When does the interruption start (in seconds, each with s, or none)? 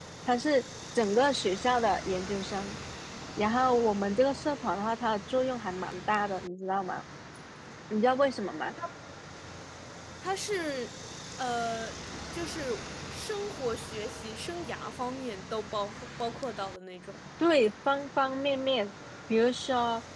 none